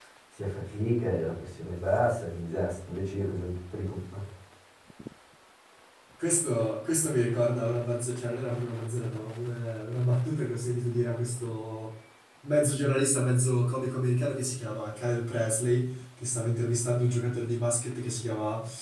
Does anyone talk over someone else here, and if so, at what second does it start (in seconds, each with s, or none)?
none